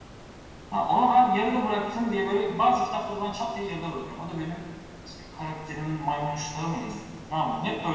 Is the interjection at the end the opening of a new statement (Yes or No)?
No